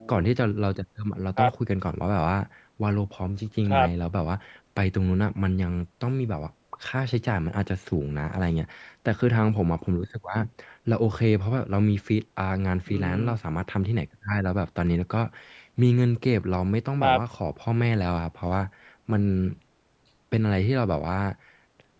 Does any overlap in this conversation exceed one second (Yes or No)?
No